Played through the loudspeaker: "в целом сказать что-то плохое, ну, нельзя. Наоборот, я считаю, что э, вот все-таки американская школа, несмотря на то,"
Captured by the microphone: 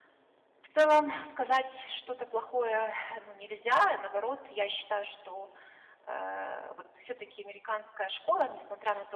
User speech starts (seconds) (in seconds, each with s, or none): none